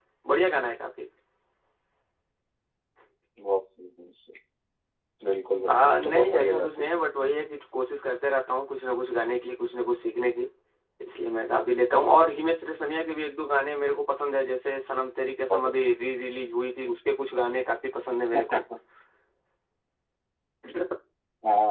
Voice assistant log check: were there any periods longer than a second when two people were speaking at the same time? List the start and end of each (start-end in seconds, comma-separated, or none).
5.7-7.0